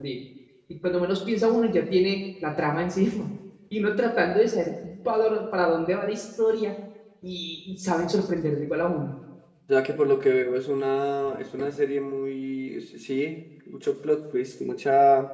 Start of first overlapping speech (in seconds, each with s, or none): none